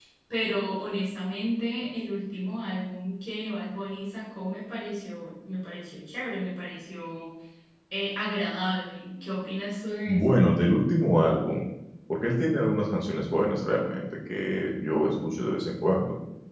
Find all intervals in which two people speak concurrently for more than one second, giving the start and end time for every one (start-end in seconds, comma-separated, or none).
none